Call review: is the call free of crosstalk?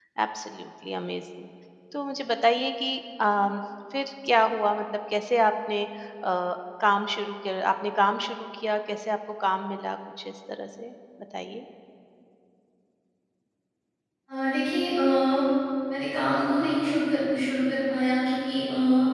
Yes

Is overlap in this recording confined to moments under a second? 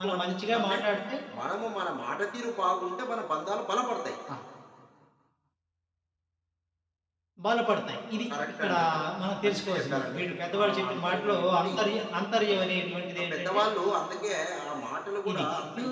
No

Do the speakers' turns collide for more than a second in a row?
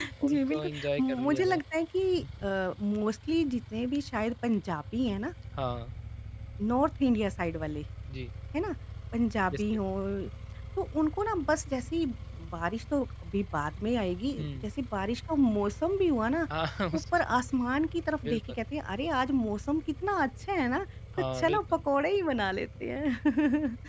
Yes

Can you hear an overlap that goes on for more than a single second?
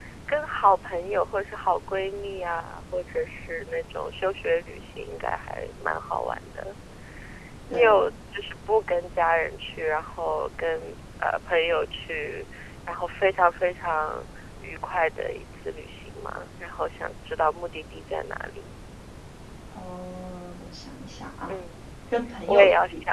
No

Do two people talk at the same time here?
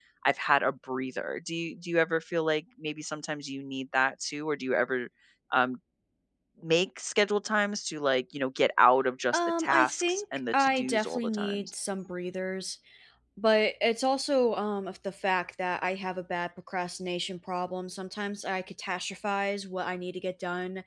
Yes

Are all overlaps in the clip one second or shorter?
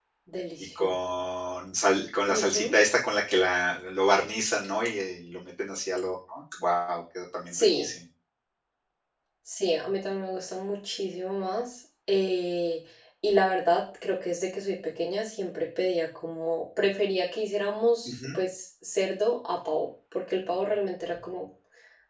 Yes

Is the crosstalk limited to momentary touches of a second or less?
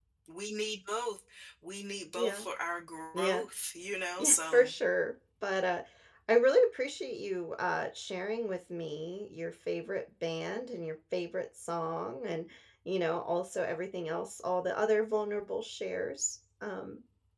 Yes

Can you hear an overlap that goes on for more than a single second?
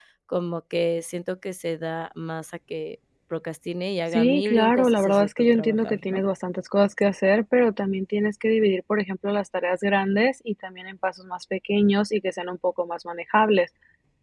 Yes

